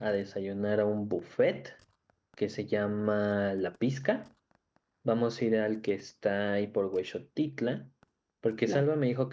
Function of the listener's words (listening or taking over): listening